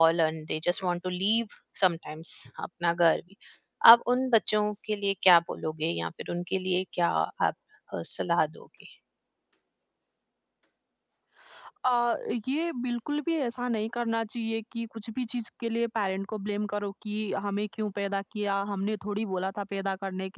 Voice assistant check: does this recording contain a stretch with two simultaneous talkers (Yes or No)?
No